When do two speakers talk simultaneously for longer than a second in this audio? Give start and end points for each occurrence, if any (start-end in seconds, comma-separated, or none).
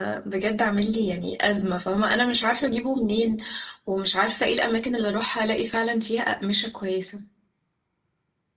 none